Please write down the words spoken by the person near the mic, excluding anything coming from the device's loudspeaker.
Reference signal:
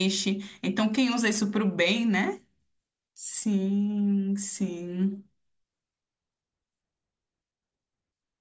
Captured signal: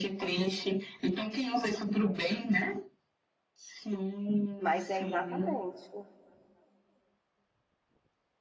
Mas é exatamente.

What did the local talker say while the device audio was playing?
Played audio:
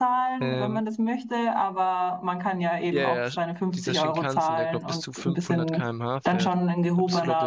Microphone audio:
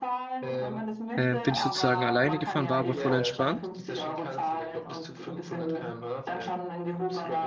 Äh, bin ich sozusagen alleine gefahren, war aber voll entspannt.

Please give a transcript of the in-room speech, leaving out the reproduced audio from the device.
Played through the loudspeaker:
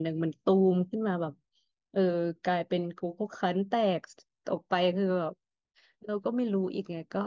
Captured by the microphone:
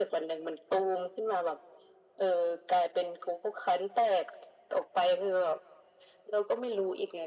none

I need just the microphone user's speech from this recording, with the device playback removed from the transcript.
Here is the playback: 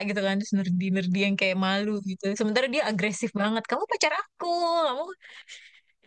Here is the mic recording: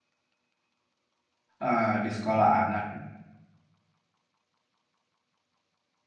ah, di sekolah anak

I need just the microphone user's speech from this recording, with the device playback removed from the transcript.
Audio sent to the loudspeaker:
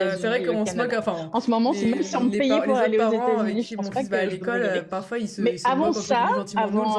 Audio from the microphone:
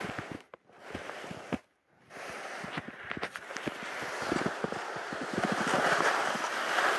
none

